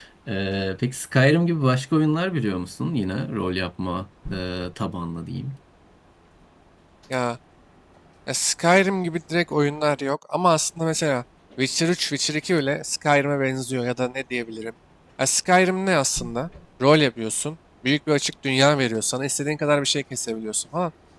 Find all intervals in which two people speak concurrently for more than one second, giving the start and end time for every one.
none

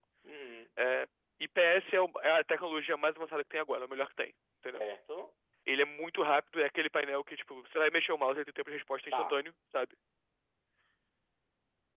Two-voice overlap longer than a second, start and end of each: none

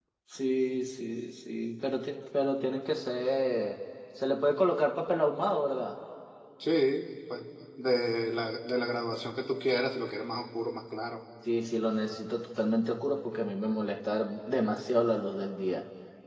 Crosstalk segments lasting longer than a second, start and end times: none

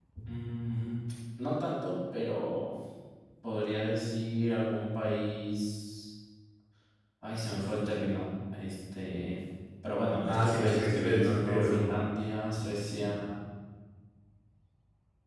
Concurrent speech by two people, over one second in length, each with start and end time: 10.2-12.0

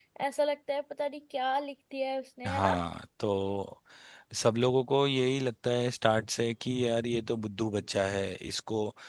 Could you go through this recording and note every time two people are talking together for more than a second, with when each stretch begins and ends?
none

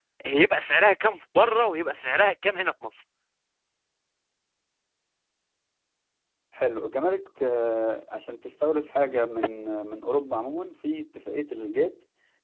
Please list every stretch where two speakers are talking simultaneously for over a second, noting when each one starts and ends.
none

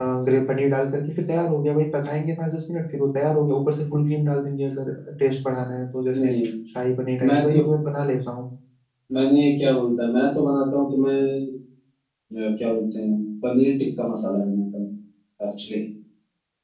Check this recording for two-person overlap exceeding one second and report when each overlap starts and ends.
none

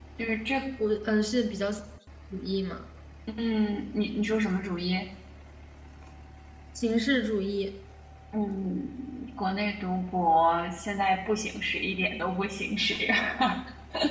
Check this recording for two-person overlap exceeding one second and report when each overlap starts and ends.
none

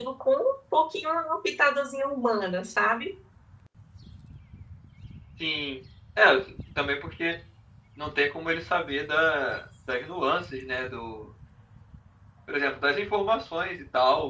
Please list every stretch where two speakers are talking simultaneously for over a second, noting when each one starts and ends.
none

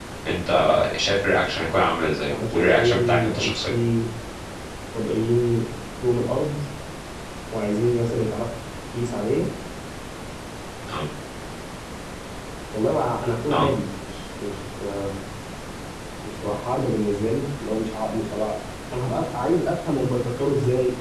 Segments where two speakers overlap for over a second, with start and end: 2.3-3.5

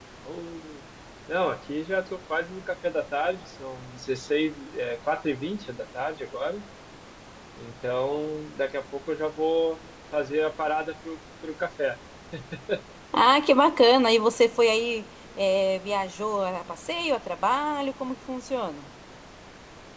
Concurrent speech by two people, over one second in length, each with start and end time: none

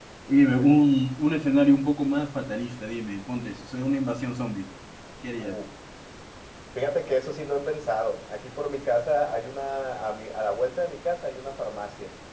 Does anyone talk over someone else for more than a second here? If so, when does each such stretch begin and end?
none

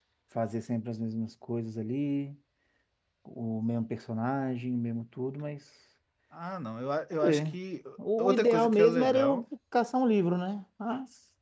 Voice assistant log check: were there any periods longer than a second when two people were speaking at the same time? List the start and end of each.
8.2-9.4

